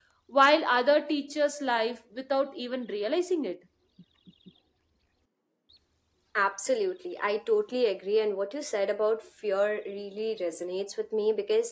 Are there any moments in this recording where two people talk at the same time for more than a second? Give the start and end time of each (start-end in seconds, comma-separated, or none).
none